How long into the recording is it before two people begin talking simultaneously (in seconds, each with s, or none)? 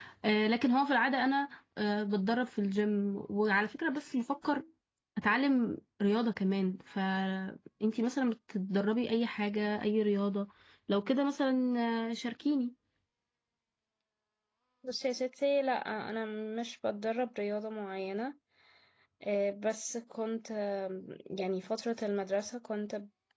none